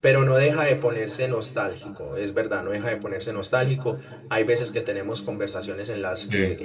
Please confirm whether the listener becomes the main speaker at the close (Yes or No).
No